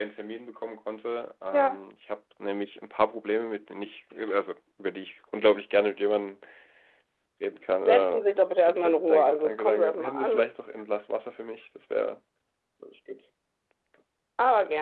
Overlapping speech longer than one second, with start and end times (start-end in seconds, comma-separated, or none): 8.7-10.5